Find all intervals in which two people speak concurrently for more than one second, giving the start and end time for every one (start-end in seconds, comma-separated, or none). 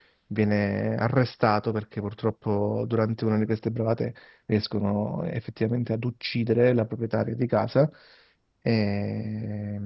none